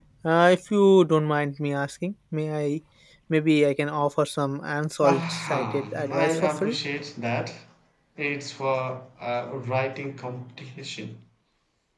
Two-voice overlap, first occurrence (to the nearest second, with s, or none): 5 s